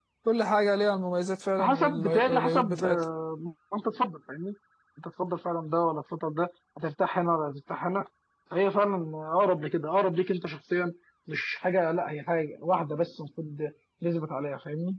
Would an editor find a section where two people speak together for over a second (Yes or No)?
Yes